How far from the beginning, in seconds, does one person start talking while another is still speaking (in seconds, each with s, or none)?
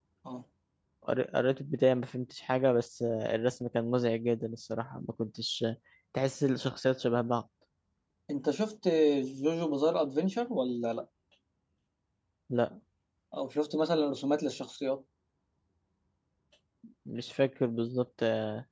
none